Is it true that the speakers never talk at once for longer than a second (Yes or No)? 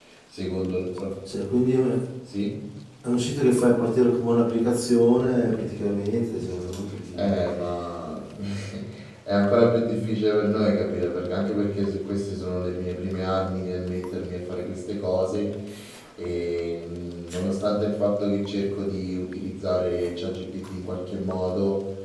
Yes